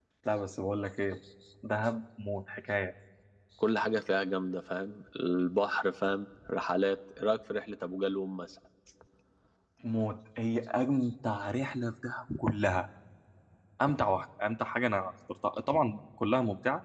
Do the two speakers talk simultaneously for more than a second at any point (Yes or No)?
No